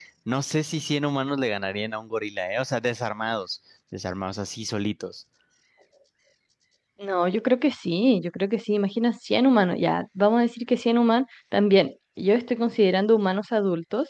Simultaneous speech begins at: none

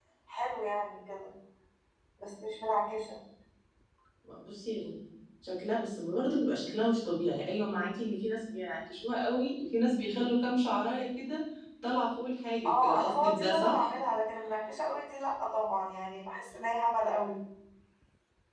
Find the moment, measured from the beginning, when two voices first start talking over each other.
12.7 s

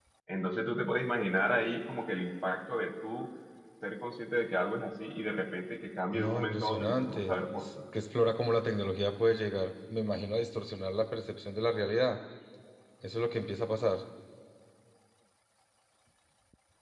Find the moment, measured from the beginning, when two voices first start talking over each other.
6.1 s

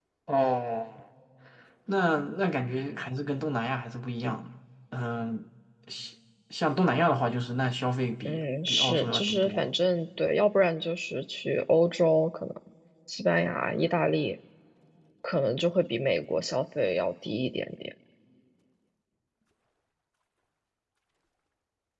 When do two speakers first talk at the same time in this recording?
8.2 s

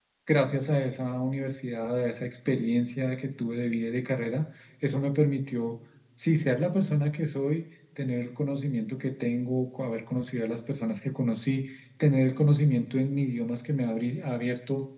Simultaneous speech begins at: none

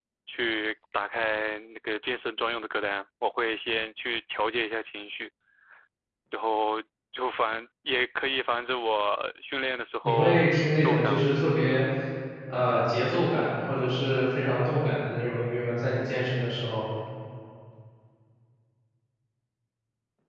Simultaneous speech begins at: 10.0 s

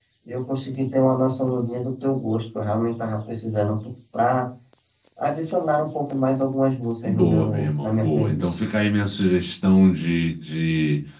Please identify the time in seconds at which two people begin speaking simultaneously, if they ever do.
7.0 s

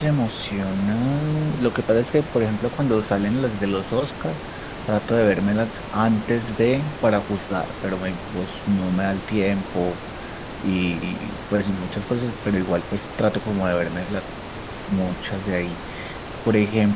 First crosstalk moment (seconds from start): none

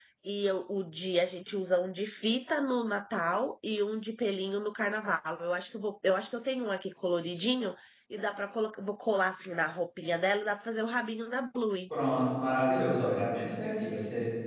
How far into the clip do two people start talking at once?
none

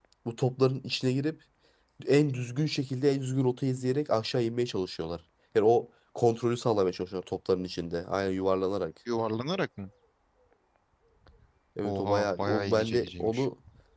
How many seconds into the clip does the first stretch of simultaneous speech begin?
11.8 s

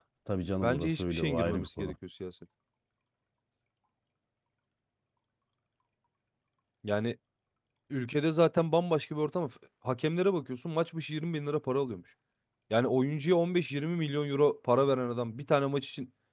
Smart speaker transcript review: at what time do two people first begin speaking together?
0.6 s

